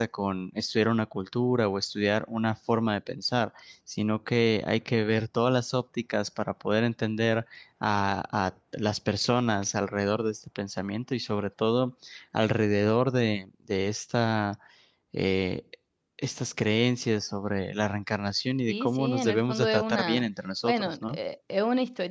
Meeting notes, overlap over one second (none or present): present